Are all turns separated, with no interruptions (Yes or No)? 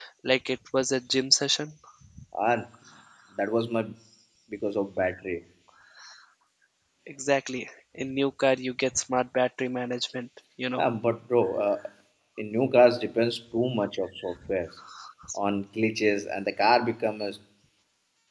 Yes